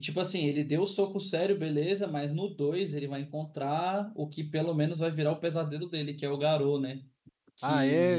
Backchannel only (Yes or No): No